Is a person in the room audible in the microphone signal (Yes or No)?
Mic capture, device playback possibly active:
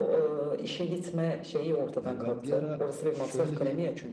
Yes